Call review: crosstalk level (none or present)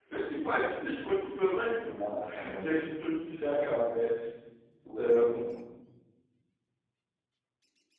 present